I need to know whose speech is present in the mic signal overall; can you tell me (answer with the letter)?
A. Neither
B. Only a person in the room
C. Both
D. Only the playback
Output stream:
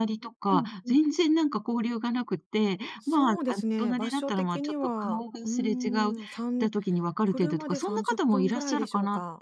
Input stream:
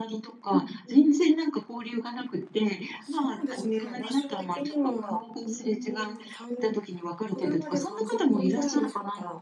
D